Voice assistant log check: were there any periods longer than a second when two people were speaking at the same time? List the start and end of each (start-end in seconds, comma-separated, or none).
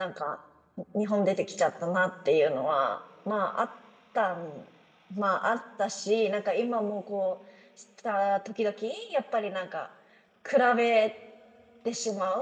none